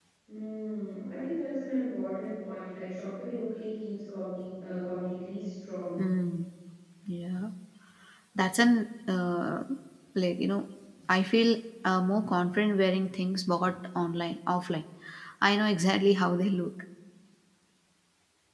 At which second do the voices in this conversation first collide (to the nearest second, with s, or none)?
none